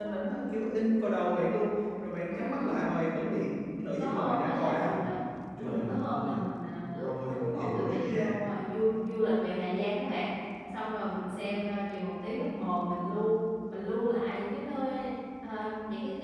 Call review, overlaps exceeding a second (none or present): present